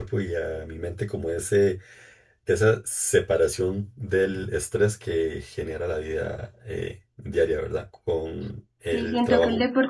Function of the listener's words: taking over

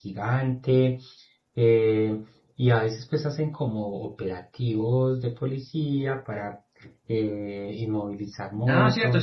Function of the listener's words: taking over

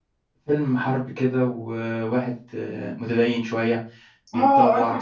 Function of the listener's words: taking over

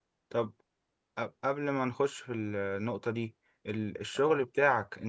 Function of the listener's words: listening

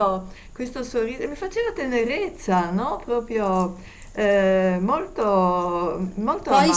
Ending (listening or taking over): taking over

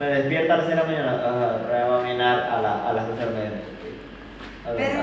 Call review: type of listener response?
taking over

